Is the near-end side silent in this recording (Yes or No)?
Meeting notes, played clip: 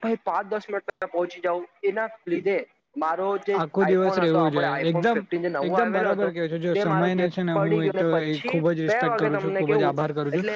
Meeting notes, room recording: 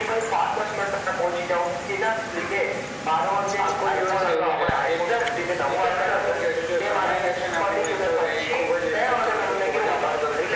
Yes